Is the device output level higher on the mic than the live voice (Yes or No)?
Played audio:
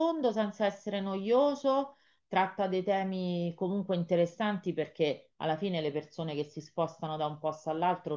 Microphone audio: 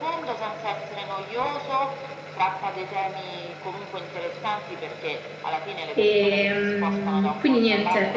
No